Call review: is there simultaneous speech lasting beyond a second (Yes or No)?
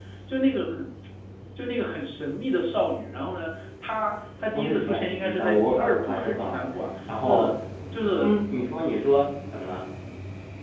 Yes